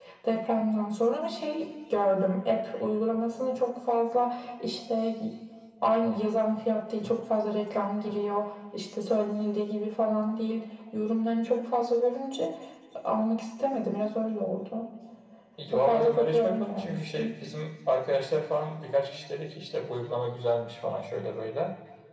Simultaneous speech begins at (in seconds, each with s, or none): 15.7 s